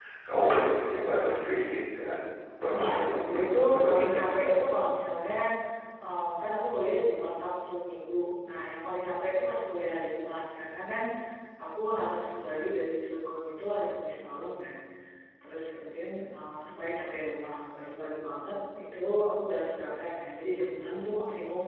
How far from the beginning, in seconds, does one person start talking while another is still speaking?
3 s

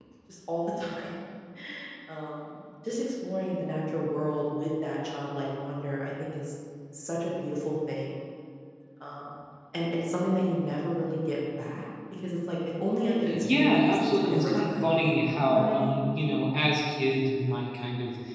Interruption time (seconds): 13 s

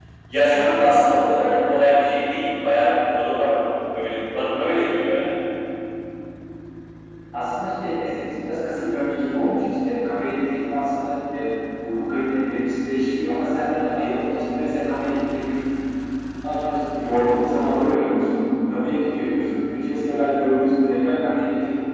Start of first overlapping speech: none

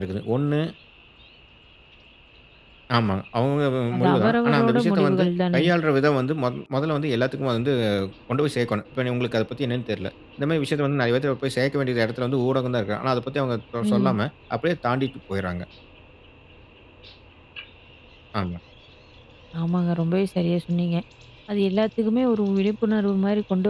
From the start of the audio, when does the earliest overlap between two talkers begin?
4 s

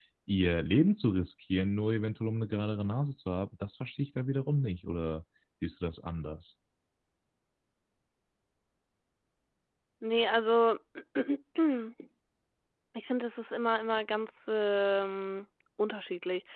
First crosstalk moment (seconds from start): none

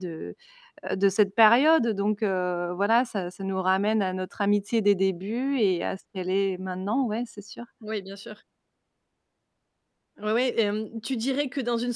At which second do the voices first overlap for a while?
none

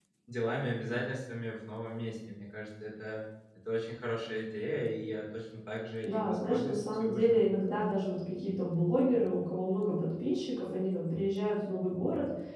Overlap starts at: 6 s

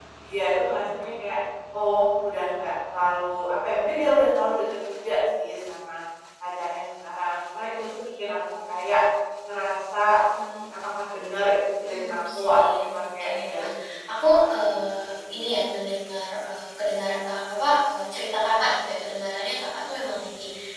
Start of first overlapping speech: 12 s

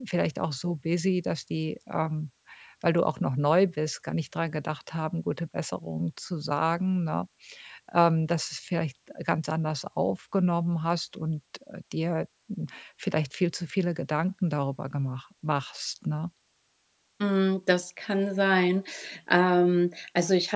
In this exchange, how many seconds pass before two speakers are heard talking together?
none

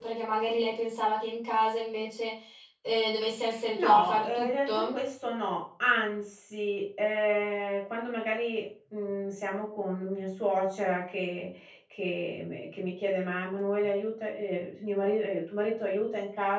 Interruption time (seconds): 4 s

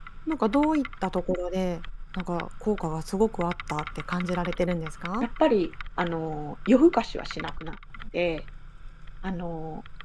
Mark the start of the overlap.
none

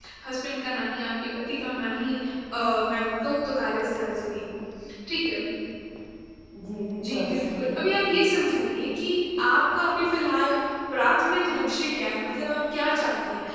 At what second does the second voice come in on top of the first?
7 s

